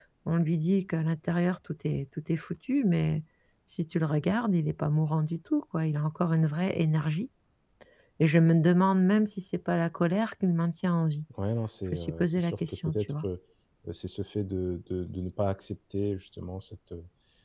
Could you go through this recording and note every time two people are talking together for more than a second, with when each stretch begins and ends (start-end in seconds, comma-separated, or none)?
11.9-13.2